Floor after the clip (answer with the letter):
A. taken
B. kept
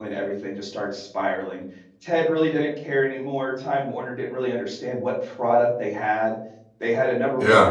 B